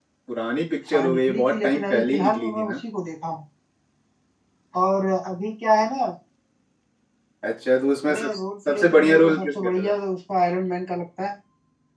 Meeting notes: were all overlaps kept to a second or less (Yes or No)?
No